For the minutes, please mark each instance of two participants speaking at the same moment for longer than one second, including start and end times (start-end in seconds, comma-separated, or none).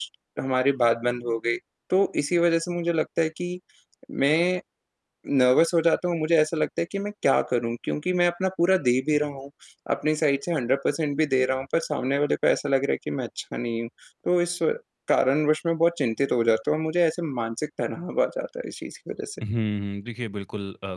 none